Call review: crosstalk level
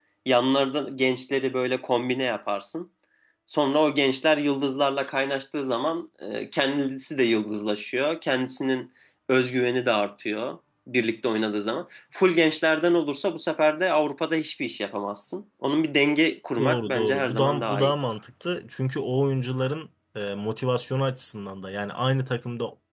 present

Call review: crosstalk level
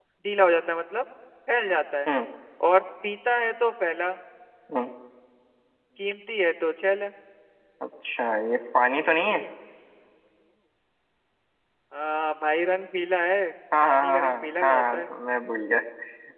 present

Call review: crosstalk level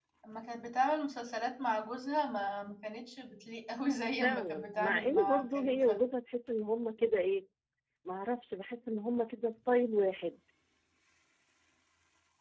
present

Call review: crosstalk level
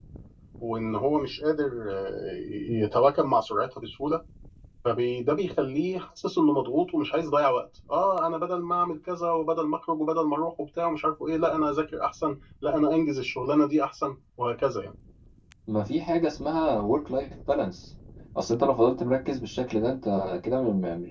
none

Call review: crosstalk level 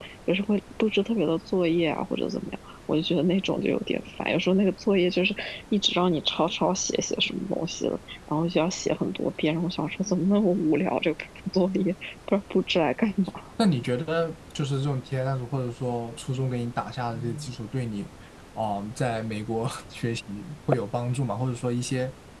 none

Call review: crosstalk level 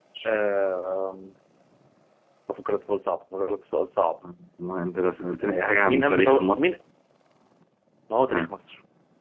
present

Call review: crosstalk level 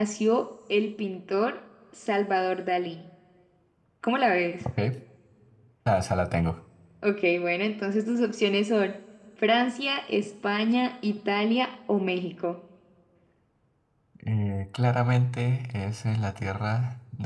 none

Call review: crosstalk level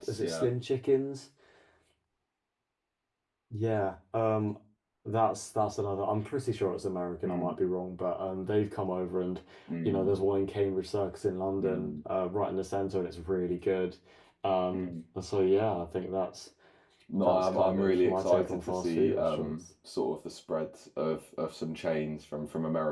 present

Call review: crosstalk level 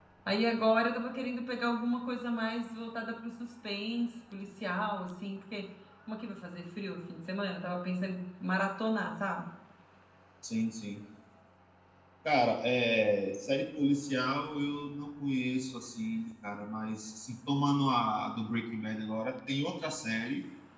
none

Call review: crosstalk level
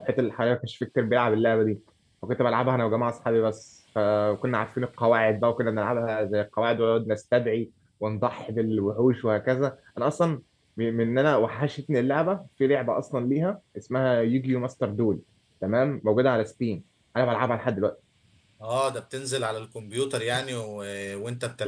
none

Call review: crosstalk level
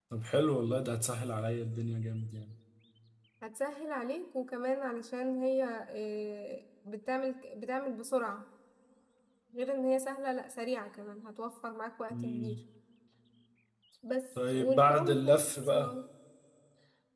present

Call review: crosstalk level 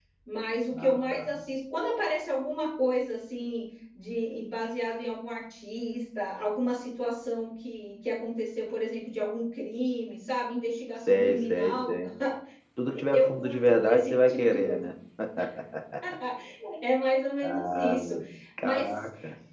present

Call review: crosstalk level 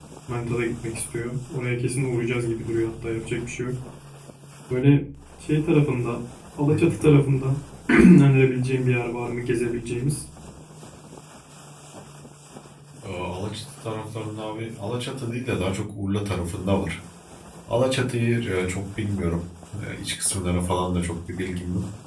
none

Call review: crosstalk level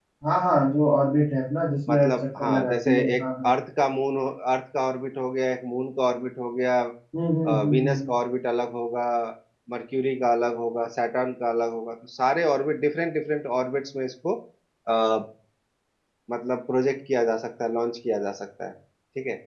present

